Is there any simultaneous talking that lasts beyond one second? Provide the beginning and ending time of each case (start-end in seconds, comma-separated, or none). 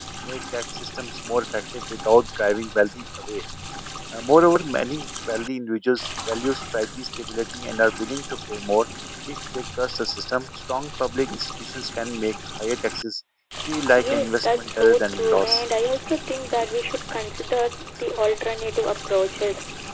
14.0-15.6